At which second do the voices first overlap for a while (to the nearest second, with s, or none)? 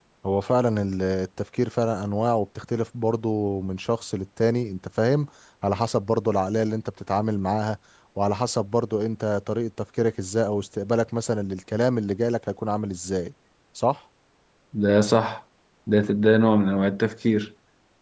none